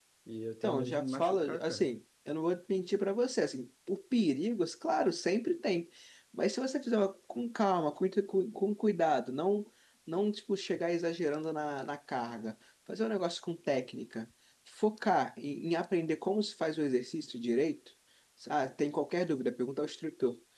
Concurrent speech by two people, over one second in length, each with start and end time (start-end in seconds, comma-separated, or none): 0.6-1.9